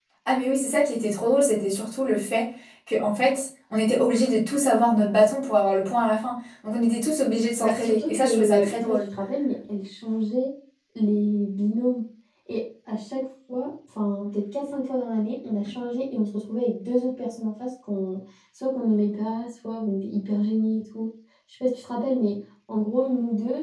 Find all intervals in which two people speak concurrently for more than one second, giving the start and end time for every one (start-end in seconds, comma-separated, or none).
7.6-9.0